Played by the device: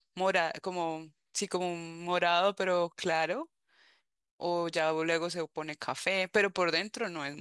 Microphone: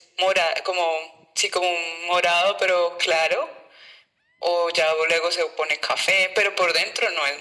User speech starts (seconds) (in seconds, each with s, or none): none